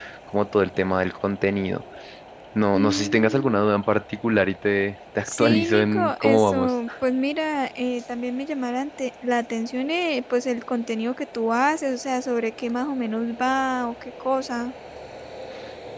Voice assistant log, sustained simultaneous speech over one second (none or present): present